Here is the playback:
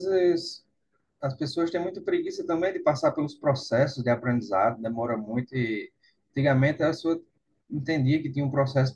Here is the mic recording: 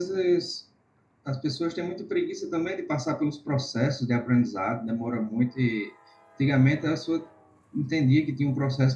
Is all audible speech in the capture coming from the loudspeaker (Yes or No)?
Yes